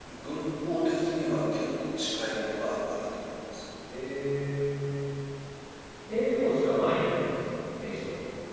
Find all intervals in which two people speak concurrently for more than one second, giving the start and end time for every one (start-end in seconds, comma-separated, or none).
none